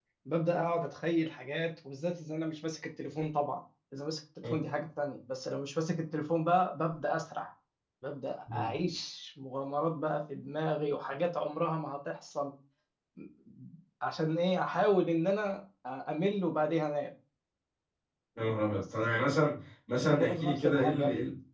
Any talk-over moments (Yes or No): Yes